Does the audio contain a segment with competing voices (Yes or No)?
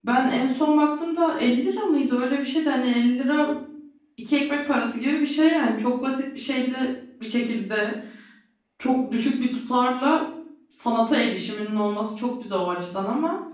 No